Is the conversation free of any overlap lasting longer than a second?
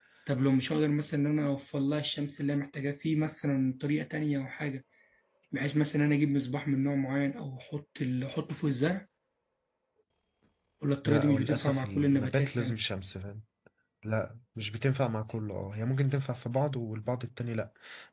No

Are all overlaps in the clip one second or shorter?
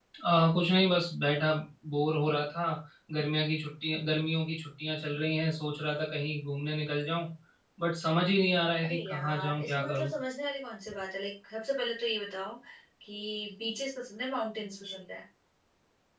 No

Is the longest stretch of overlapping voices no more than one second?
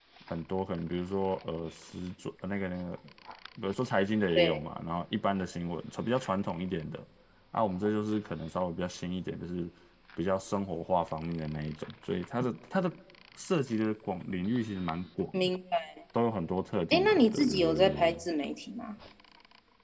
No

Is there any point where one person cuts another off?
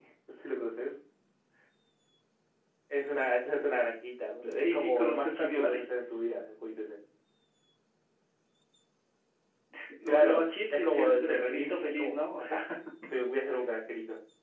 Yes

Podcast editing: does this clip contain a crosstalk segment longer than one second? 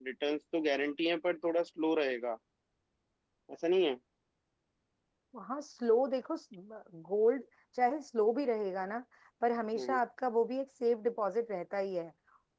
No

